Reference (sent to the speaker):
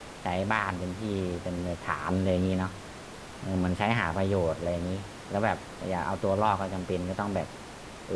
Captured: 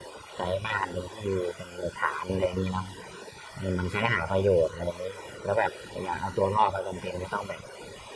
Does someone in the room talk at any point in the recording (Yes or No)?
No